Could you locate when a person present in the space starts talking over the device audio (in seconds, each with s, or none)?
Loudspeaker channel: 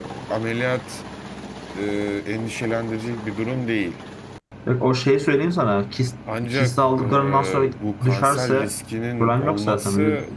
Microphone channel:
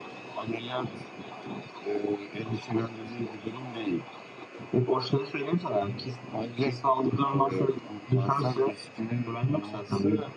none